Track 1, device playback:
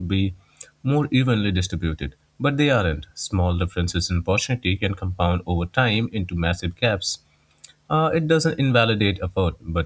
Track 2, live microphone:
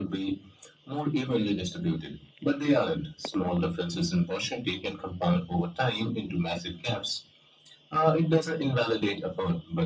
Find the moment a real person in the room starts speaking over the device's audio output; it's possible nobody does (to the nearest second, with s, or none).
none